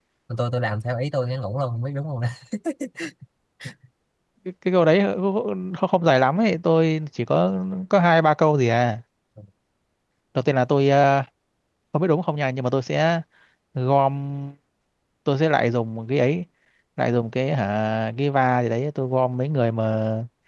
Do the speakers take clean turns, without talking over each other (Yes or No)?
Yes